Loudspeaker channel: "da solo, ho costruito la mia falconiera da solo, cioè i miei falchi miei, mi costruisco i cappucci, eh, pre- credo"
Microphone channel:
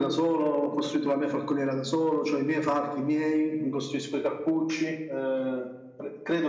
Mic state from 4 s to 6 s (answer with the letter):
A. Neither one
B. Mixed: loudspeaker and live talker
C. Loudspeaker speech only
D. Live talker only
C